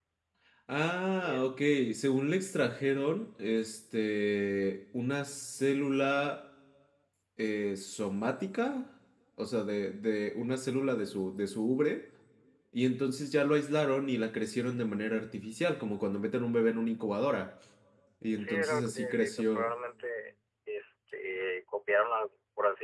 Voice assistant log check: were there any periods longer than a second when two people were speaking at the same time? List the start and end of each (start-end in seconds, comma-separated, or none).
18.4-19.7